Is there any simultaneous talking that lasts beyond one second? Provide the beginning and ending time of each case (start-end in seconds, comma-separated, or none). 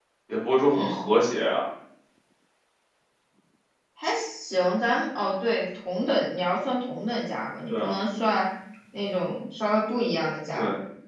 none